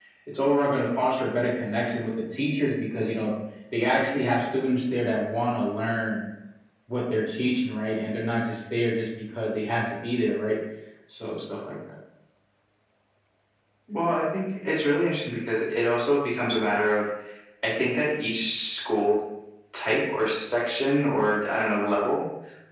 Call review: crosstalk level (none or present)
none